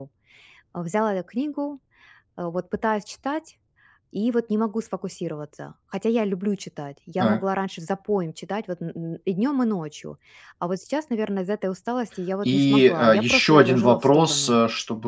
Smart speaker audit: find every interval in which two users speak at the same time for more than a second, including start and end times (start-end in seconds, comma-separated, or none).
12.4-14.6